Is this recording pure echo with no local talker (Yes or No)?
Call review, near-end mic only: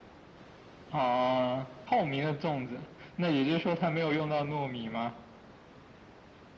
Yes